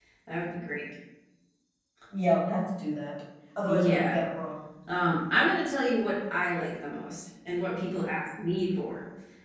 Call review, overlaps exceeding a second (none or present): none